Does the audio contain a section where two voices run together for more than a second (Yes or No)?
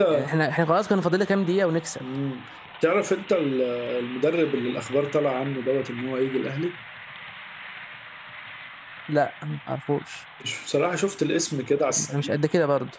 No